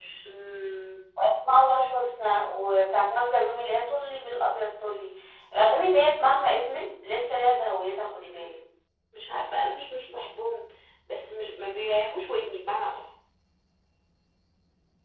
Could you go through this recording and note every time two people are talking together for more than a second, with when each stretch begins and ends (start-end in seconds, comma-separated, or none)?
none